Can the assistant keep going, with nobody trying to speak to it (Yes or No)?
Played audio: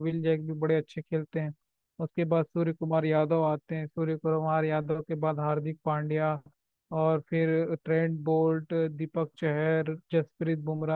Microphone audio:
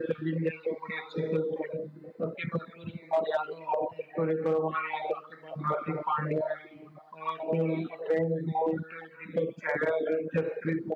Yes